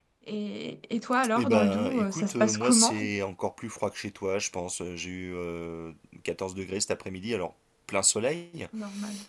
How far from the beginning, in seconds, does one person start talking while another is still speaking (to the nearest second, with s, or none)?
1 s